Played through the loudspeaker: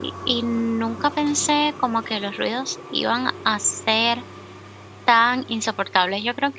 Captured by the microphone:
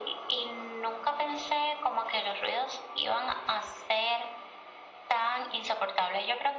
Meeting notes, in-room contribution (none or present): none